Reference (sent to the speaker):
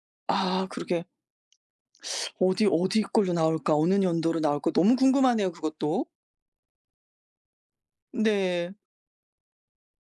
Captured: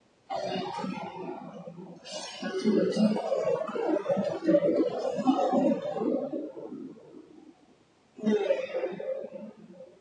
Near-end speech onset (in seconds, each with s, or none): none